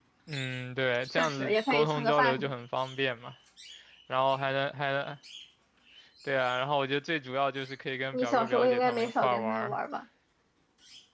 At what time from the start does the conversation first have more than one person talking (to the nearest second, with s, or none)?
1 s